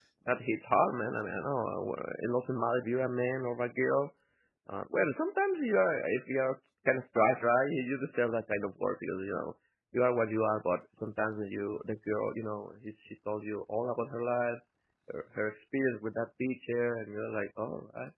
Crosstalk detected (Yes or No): No